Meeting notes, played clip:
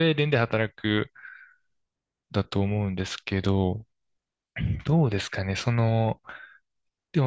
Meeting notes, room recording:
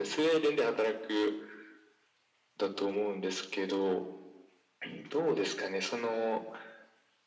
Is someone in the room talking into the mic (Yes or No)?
No